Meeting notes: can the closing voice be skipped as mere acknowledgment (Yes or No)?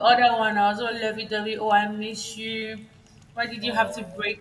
Yes